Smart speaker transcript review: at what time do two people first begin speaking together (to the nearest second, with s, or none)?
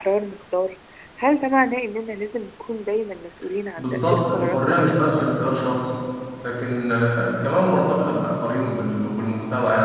4 s